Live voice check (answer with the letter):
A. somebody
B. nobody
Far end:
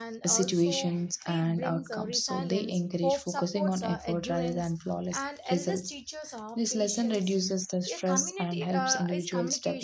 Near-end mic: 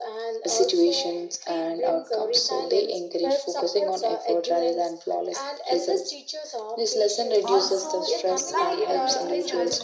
A